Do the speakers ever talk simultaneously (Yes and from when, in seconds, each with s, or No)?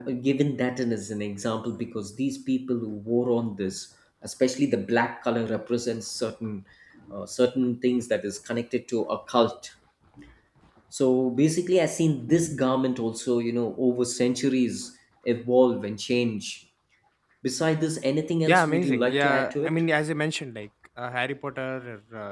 Yes, from 18.5 s